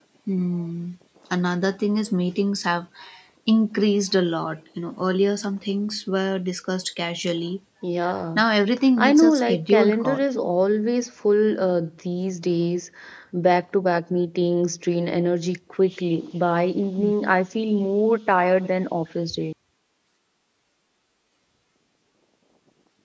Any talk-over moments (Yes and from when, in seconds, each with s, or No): Yes, from 9.0 s